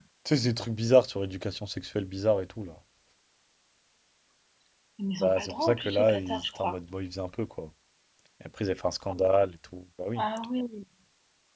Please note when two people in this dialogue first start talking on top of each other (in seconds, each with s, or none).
5.2 s